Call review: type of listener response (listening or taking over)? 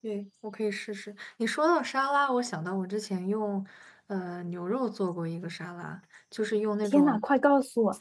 taking over